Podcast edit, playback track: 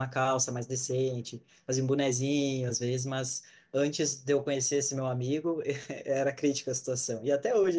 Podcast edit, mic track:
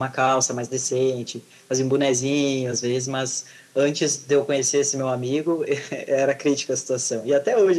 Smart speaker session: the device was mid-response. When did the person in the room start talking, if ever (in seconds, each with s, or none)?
none